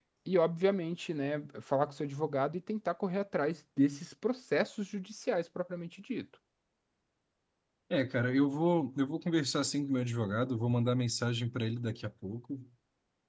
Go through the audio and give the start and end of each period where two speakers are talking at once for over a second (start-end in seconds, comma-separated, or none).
none